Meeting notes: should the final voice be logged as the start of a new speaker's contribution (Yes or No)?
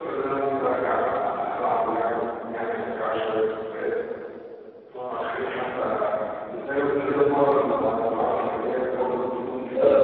No